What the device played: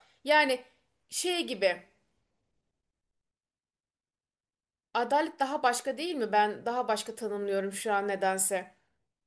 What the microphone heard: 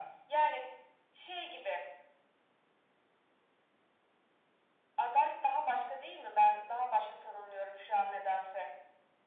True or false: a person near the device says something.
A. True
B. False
B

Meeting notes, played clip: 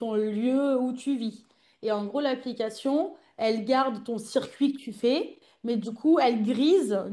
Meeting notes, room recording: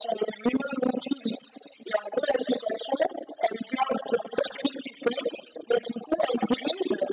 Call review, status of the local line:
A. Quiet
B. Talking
A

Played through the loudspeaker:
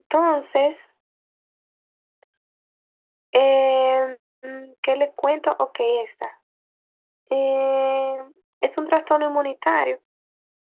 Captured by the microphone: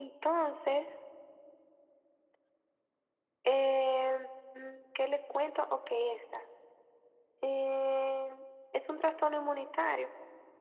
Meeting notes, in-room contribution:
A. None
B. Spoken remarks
A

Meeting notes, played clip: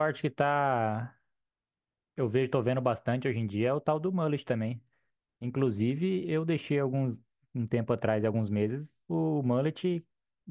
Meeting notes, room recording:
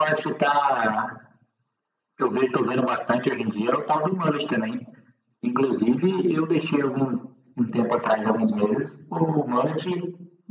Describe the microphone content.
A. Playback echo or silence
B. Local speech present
A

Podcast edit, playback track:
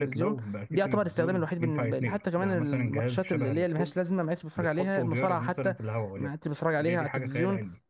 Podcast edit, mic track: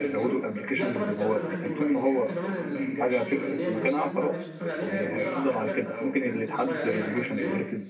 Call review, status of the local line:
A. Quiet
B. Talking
B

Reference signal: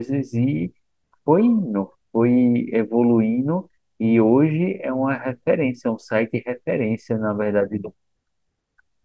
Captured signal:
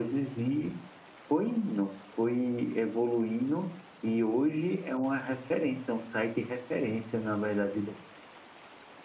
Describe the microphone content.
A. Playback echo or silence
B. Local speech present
A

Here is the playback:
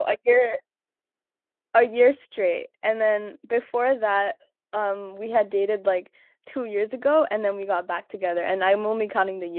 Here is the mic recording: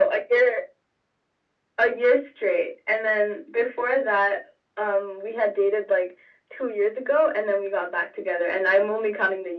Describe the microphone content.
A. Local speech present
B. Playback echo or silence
B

